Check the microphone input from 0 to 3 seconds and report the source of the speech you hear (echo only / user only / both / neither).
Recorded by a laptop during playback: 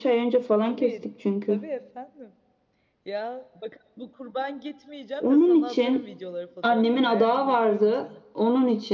both